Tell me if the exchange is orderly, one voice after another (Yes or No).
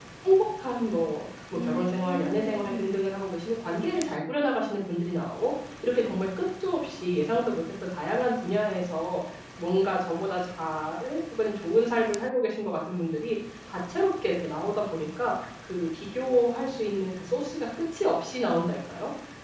No